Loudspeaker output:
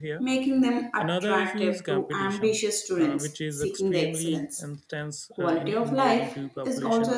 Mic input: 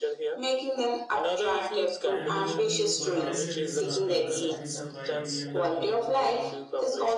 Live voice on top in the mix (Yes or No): No